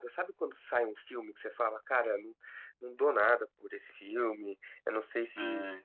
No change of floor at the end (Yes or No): Yes